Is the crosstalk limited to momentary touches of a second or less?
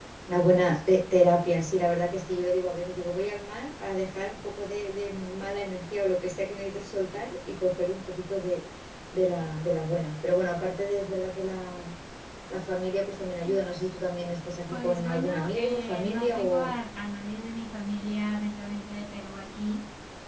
No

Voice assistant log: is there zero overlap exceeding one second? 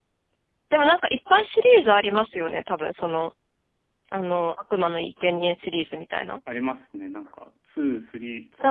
Yes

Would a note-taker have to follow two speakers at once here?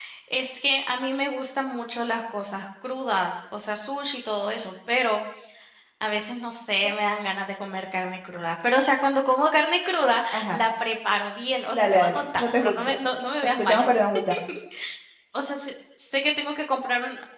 Yes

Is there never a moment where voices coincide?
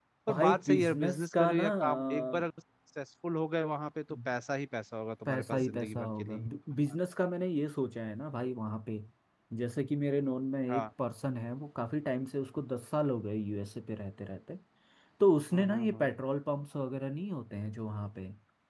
No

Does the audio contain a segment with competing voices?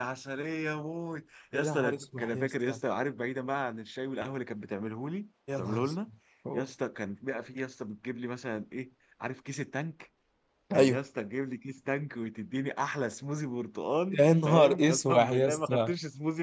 Yes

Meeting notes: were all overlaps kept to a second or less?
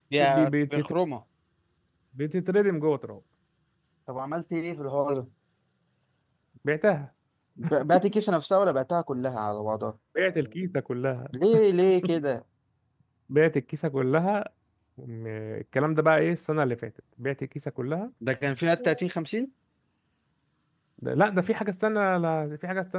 Yes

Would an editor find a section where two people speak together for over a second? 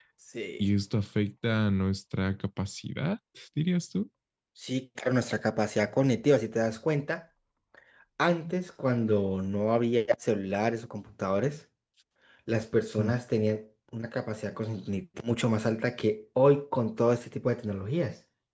No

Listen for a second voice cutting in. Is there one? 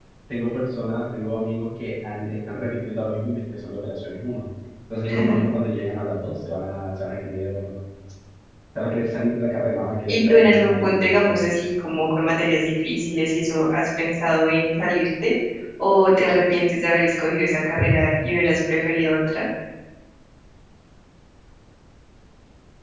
Yes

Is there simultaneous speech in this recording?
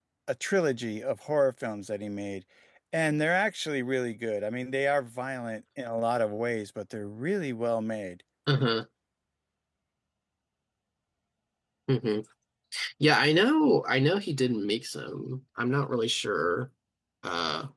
No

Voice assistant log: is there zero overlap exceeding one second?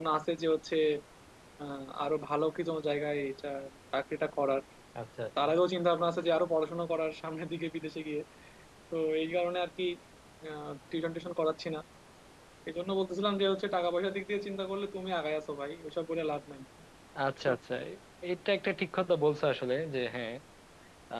Yes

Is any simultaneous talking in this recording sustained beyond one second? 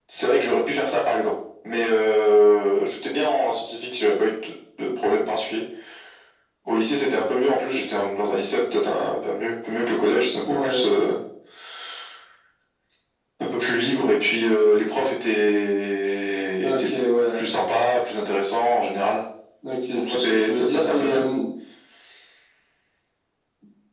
Yes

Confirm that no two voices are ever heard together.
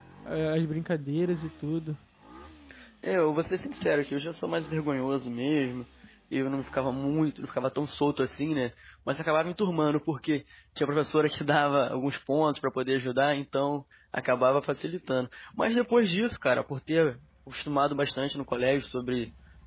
Yes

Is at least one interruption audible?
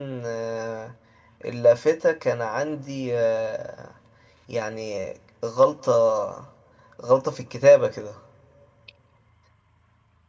No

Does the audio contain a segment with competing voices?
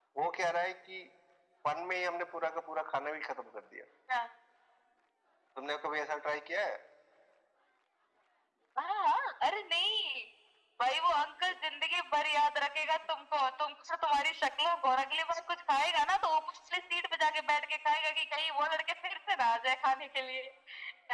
No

